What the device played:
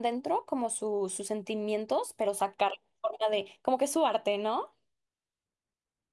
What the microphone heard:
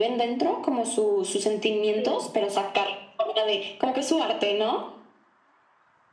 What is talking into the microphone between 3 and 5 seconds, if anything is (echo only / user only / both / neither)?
echo only